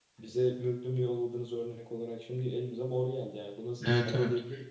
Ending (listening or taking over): taking over